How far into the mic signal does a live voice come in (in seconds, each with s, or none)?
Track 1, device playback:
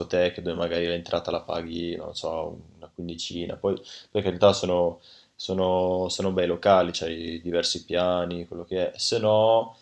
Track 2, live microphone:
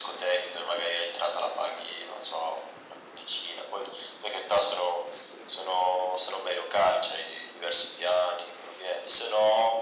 none